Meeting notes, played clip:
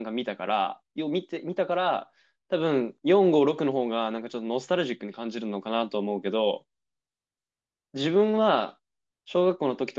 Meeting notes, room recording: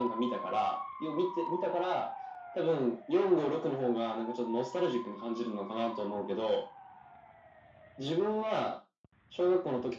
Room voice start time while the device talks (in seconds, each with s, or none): none